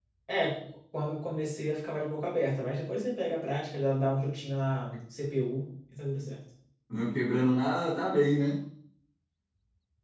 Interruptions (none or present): none